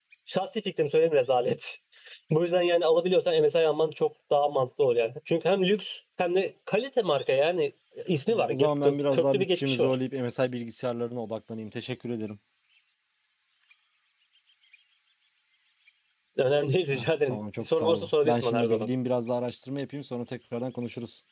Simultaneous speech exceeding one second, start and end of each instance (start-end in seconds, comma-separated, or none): 8.3-10.0, 16.9-18.9